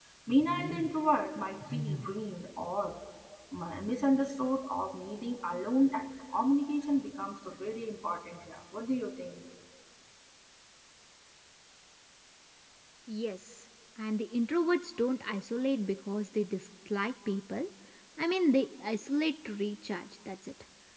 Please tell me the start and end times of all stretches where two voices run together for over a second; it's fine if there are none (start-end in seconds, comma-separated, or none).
none